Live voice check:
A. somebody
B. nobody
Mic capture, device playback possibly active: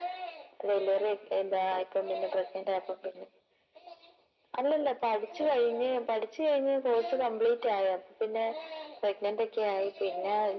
B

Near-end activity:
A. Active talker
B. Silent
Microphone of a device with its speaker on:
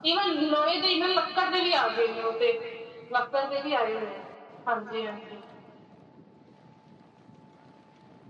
B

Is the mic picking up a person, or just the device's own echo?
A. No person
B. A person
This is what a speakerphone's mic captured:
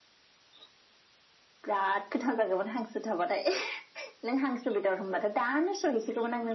A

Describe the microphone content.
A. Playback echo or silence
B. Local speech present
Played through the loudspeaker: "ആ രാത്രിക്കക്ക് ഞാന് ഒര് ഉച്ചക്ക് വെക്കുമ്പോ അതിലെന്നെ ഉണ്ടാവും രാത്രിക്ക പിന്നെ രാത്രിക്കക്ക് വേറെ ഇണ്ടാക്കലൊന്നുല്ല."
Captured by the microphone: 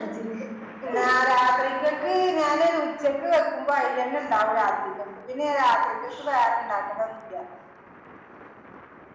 A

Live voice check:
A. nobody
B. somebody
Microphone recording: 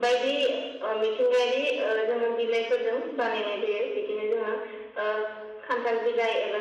A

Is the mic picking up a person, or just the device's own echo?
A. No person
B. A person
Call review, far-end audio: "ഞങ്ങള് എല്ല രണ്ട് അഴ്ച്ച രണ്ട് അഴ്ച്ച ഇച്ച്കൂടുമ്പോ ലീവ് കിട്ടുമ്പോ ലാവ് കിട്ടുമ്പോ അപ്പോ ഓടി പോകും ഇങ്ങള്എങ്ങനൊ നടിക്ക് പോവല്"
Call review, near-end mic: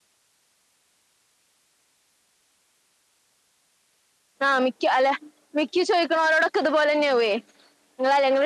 B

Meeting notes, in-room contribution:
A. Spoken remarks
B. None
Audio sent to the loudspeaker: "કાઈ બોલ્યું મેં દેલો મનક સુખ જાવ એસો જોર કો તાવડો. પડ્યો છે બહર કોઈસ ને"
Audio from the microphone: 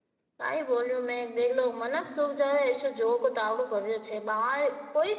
B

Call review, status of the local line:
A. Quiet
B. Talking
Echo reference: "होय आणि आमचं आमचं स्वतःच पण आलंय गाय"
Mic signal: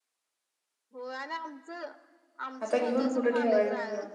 B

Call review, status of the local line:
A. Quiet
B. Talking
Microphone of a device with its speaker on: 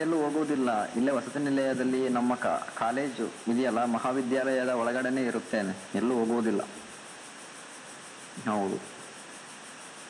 A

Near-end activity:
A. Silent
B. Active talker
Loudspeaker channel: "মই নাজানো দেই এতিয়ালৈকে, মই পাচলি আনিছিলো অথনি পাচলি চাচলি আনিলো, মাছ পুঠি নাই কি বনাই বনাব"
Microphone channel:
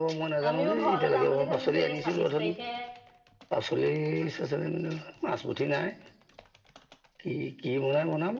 B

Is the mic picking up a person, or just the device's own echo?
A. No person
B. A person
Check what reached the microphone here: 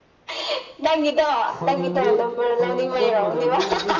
B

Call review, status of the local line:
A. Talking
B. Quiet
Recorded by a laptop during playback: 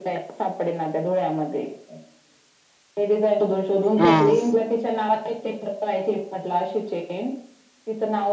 A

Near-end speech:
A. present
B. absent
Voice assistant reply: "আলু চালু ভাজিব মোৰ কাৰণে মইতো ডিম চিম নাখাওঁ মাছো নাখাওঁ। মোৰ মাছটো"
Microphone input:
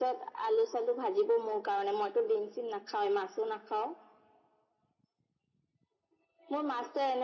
B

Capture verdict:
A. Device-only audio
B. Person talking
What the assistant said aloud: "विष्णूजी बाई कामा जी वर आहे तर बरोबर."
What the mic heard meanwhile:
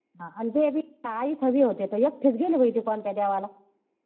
B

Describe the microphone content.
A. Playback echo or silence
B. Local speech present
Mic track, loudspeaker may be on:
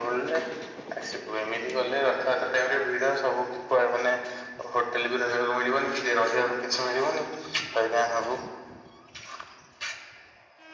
A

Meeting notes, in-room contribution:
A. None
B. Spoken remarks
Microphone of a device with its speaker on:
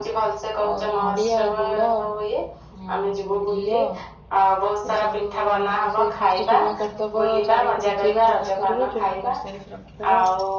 B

